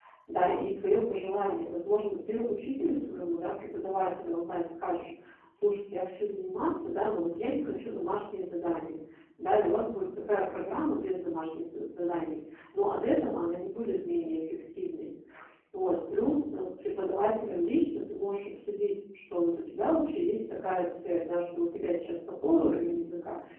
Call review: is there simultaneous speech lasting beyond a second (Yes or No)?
No